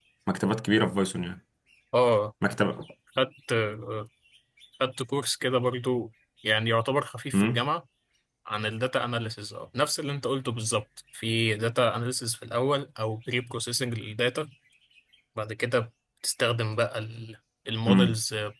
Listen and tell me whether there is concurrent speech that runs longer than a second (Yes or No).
No